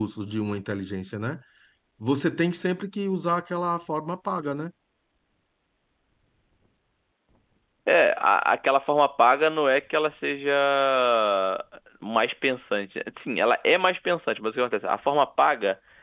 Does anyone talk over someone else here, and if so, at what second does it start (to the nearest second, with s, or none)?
none